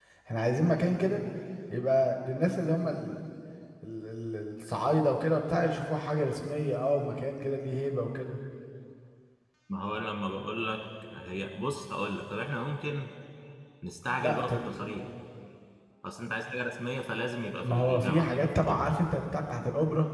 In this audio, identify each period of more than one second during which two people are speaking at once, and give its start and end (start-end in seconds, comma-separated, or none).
17.6-18.9